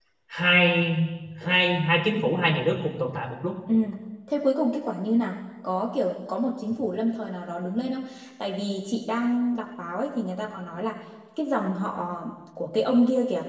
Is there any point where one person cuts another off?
No

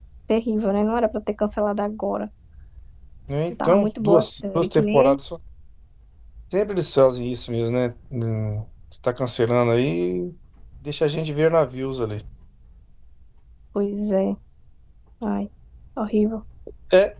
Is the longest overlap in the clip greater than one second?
Yes, from 3.6 s

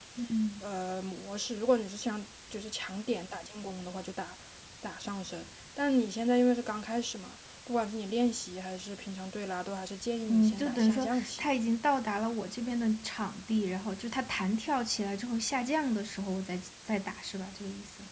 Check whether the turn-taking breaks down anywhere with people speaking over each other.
Yes, from 10.2 s

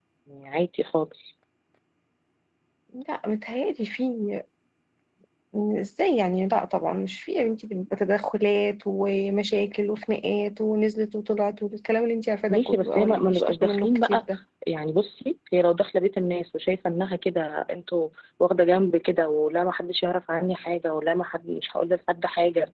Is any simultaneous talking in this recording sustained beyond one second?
Yes, from 12.5 s

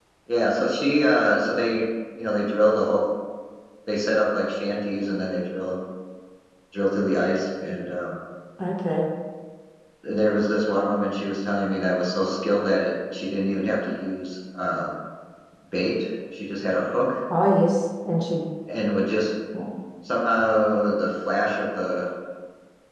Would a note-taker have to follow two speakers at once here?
No

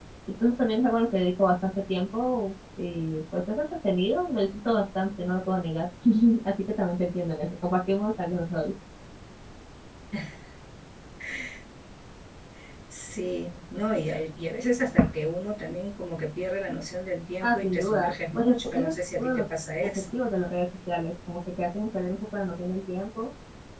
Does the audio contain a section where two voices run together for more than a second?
Yes, from 17.4 s

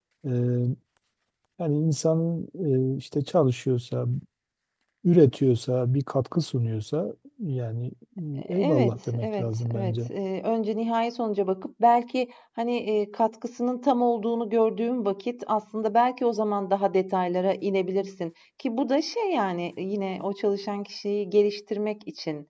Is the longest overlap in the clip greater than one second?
Yes, from 8.5 s

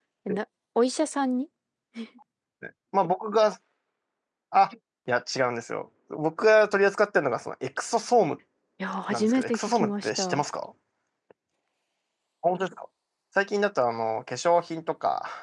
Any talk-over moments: Yes, from 9.1 s

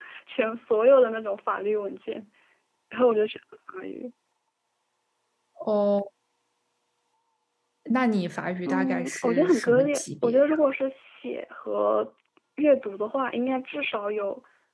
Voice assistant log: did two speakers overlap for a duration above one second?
Yes, from 8.7 s

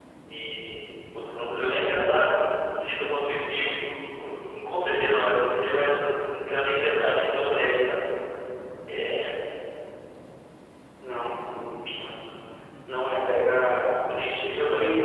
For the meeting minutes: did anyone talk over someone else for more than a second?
No

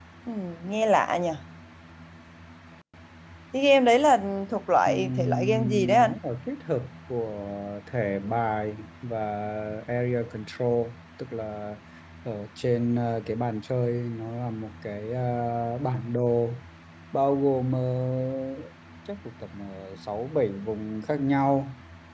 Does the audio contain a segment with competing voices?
Yes, from 4.9 s

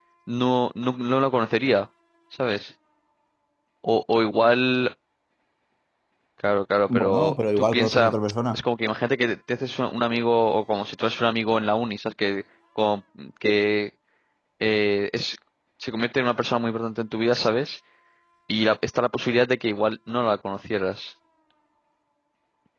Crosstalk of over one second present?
Yes, from 6.9 s

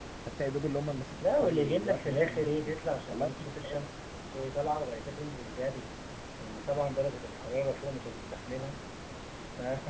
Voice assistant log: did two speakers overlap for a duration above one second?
Yes, from 1.2 s

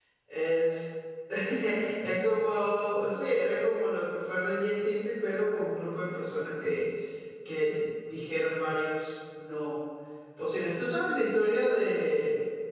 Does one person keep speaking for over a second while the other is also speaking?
No

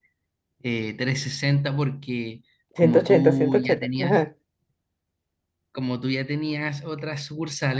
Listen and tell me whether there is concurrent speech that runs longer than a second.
Yes, from 2.8 s

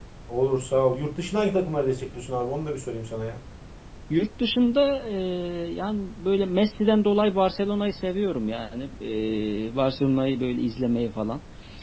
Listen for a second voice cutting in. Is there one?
No

